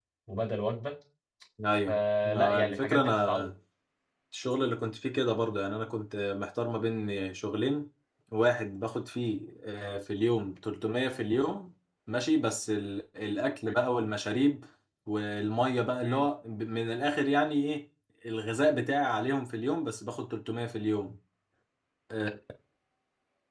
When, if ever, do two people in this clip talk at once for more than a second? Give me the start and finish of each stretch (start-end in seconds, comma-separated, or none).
1.9-3.5